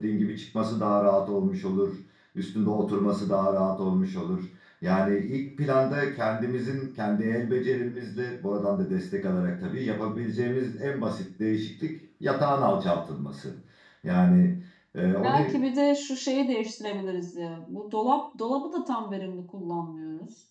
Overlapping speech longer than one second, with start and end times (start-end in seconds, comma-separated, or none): none